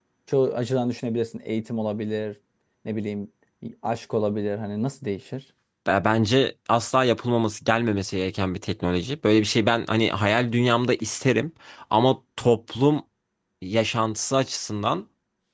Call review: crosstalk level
none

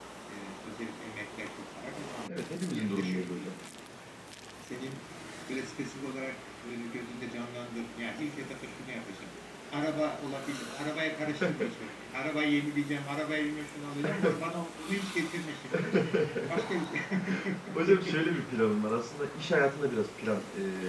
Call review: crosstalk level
present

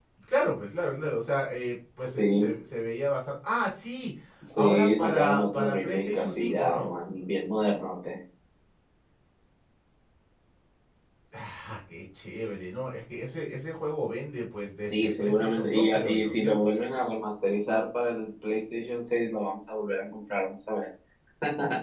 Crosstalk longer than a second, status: present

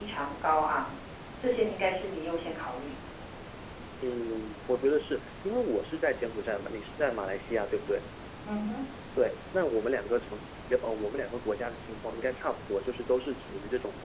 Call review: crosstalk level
none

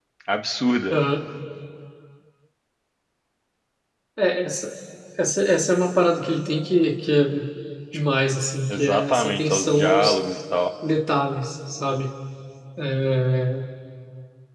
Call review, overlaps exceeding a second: present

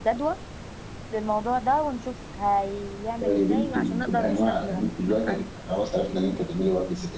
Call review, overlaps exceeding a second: present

